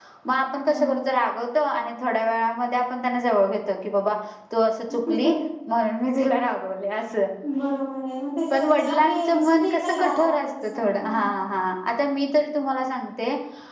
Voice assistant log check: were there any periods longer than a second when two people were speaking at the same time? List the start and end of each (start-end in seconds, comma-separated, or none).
8.5-11.4